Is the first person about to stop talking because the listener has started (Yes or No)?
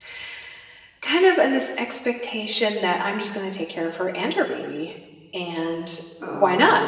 No